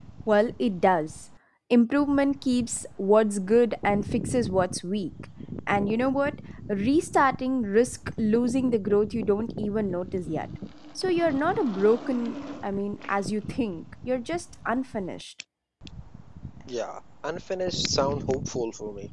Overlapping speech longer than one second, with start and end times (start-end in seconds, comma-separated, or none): none